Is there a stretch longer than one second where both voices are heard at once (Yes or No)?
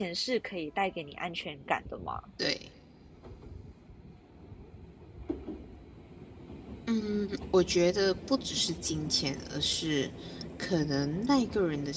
No